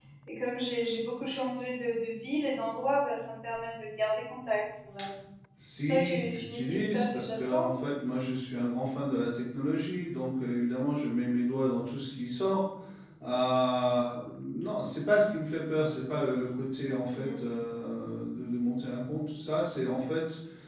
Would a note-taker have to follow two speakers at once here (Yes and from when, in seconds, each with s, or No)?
Yes, from 5.9 s